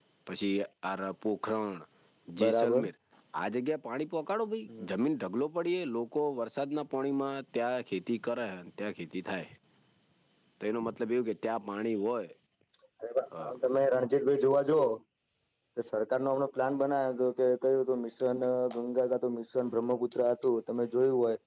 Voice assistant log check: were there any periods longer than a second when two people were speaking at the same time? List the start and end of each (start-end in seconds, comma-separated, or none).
none